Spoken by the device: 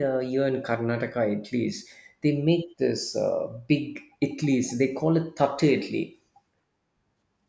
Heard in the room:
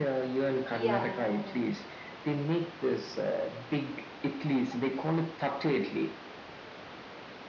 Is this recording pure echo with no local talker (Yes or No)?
No